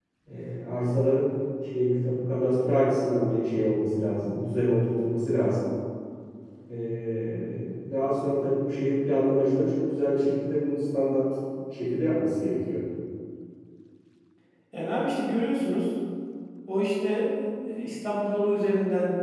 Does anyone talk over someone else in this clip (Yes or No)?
No